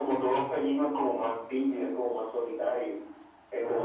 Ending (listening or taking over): listening